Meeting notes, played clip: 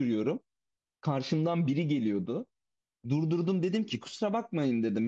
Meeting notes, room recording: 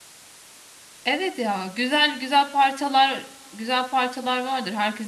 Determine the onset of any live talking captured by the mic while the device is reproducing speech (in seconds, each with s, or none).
1.0 s